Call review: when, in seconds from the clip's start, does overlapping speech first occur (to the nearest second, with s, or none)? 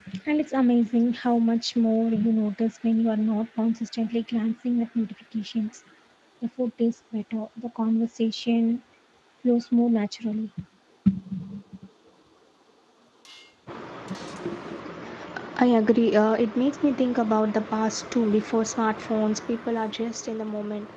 none